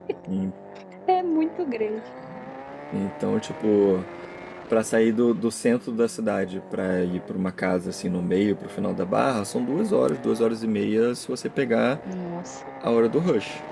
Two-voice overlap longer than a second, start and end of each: none

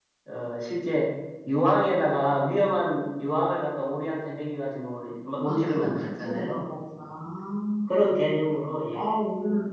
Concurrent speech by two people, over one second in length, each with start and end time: 5.4-6.7

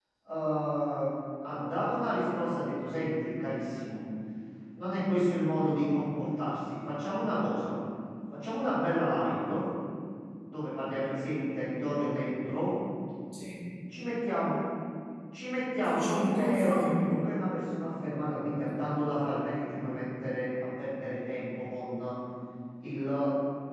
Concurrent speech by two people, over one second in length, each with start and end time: 15.8-17.2

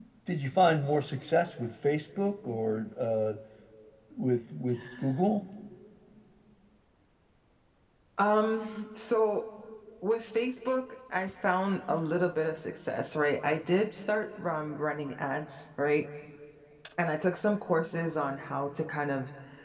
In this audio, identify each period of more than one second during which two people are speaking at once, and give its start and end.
none

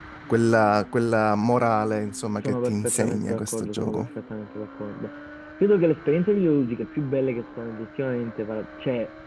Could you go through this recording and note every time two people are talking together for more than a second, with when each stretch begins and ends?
2.4-4.1

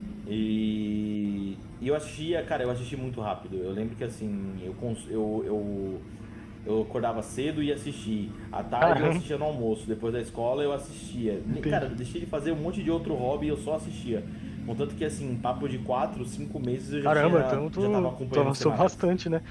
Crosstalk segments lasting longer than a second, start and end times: 17.0-19.0

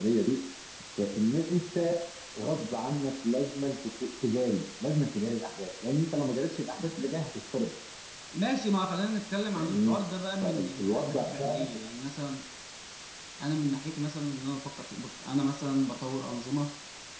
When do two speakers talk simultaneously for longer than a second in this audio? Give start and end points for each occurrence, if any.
10.4-11.7

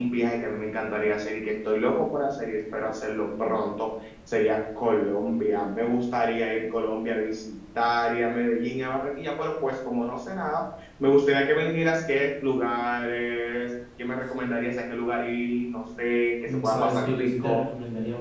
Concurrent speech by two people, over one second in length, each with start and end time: 16.4-17.7

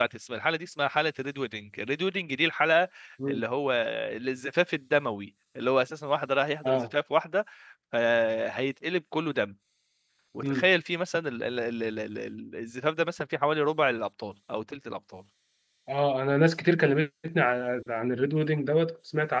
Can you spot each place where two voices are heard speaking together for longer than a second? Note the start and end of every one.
none

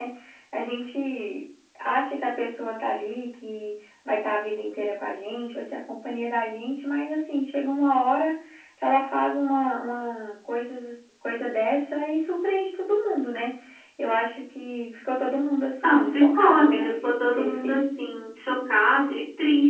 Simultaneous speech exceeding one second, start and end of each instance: 15.8-17.9

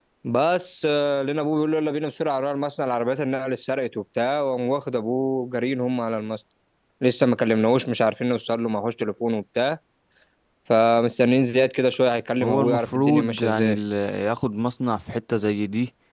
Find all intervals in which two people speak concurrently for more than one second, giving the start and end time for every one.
12.4-13.8

